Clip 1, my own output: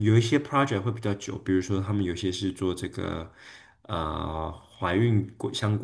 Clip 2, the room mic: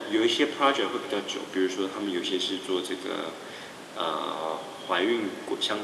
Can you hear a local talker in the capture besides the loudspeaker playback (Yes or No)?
No